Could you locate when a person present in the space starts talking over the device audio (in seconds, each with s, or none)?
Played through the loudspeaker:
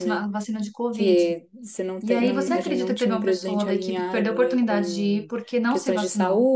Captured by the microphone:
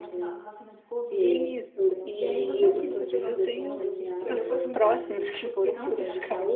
1.2 s